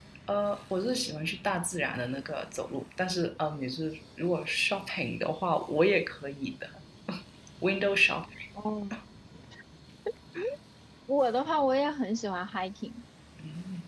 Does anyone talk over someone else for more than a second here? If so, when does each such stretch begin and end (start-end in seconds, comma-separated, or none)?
none